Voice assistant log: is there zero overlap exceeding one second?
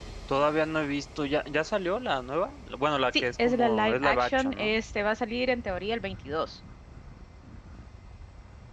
No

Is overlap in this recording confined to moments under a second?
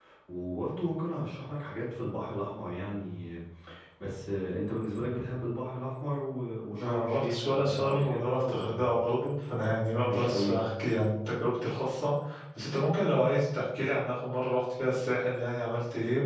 No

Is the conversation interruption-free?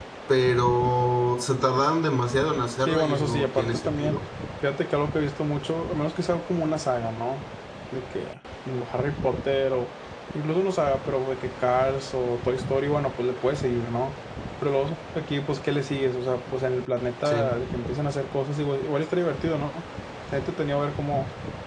No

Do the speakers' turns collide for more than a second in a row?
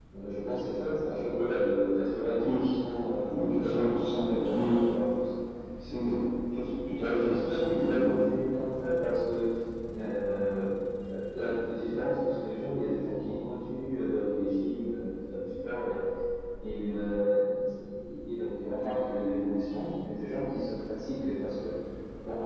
Yes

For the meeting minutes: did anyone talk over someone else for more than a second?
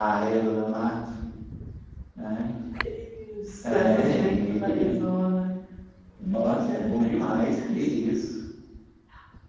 Yes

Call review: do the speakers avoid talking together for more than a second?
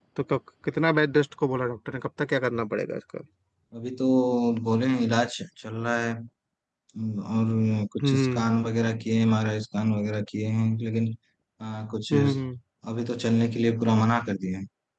Yes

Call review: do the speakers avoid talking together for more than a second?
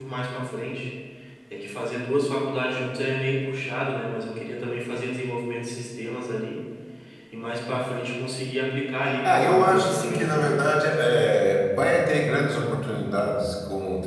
No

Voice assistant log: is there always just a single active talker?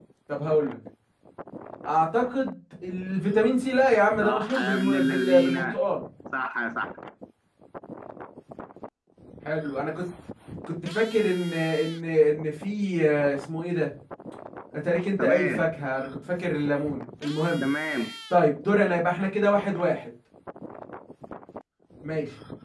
No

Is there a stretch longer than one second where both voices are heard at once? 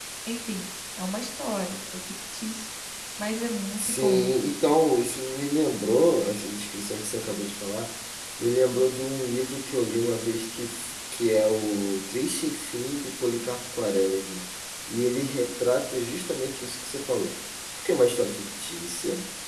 No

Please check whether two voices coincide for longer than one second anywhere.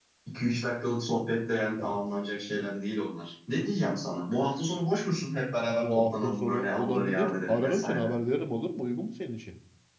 Yes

